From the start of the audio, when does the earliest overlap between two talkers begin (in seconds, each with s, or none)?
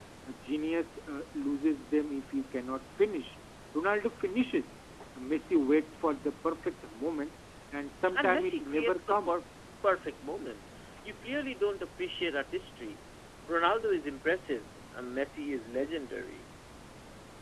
8.1 s